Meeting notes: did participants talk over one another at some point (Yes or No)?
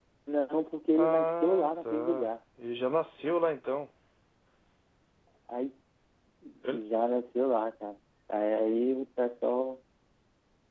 Yes